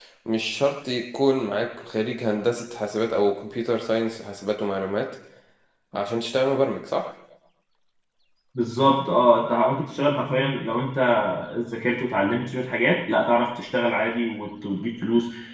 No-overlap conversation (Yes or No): Yes